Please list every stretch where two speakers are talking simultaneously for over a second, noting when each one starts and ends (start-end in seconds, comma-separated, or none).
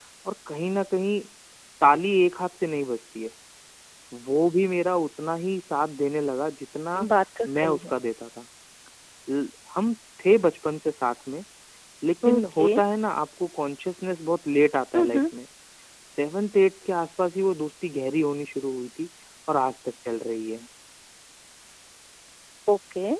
none